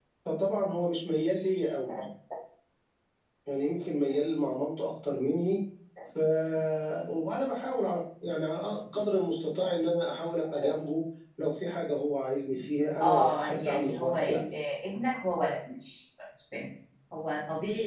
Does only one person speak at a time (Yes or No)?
No